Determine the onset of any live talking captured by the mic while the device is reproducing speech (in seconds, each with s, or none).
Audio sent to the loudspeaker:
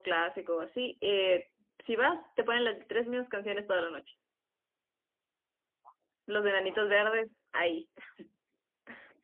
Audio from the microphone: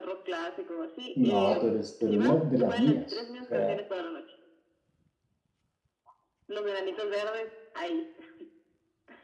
1.1 s